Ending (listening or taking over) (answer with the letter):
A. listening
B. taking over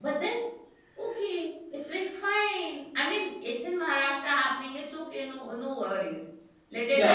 B